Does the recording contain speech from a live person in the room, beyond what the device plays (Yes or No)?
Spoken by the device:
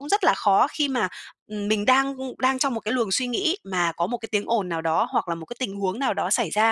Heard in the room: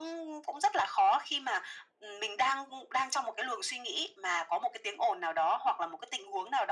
No